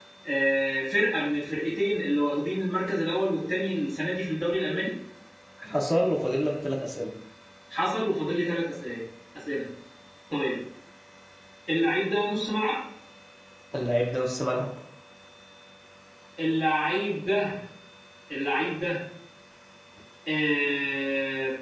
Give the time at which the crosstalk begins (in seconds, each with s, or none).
none